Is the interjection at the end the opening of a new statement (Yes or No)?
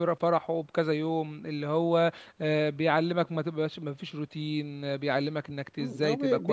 Yes